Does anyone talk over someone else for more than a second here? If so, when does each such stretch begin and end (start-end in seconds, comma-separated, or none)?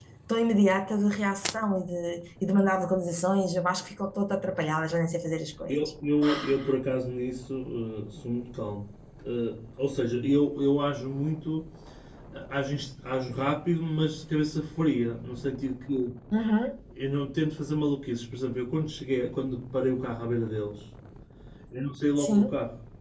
none